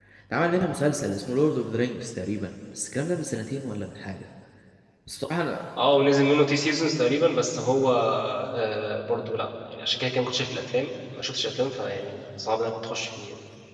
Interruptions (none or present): none